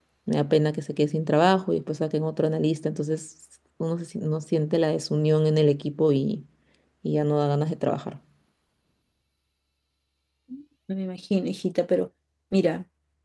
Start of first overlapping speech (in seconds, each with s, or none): none